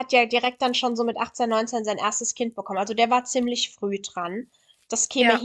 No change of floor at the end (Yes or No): Yes